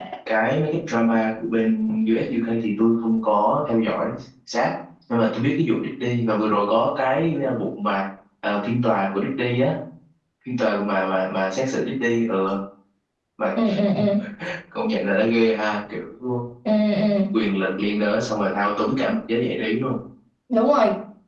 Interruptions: none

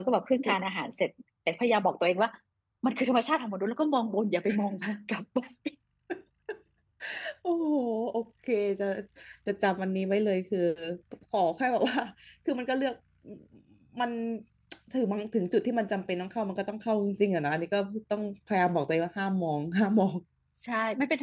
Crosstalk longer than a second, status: none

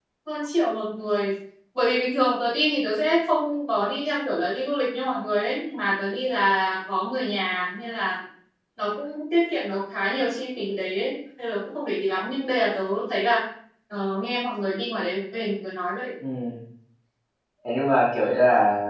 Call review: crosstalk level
none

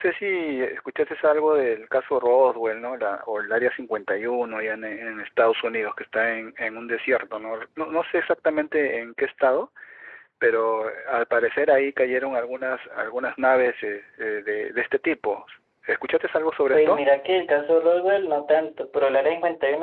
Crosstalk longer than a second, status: none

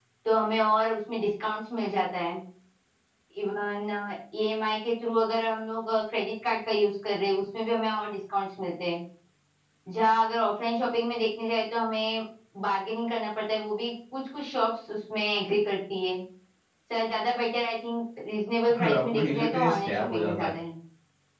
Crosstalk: present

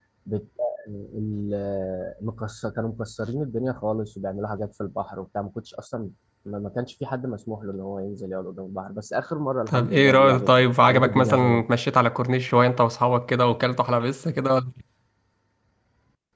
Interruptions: present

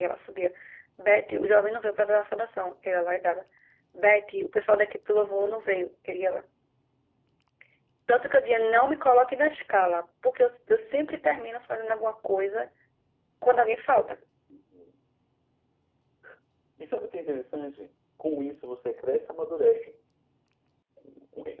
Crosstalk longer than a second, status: none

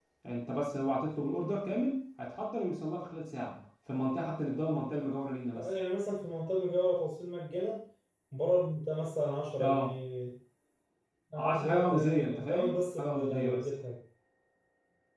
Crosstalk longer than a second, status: present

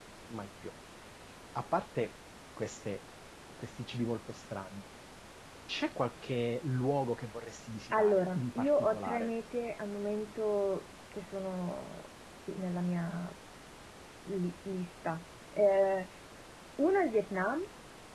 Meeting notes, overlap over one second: present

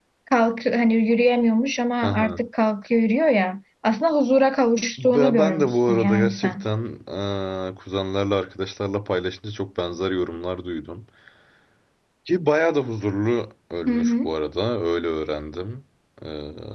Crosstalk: present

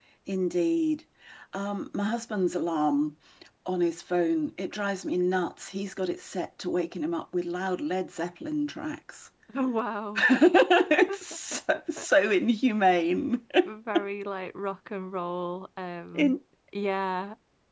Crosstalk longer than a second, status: none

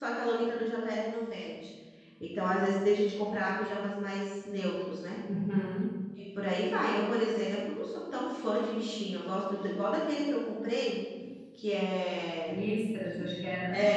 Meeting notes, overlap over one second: none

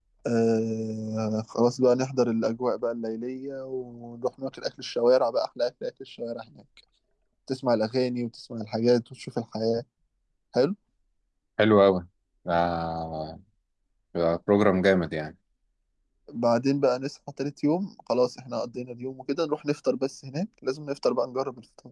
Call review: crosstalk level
none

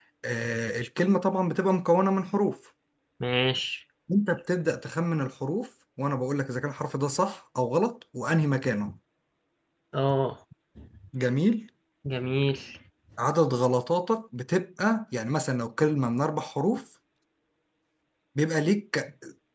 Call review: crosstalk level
none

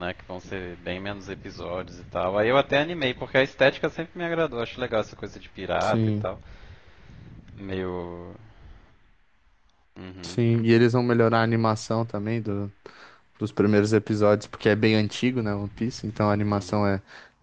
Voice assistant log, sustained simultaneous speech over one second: none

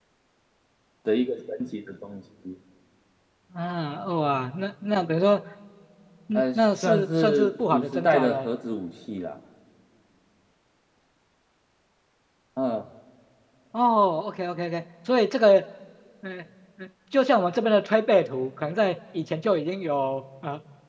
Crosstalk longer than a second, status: present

